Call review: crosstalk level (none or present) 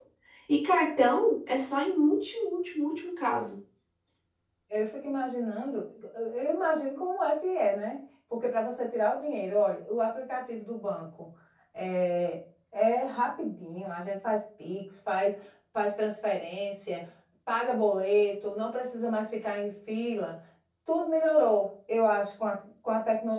none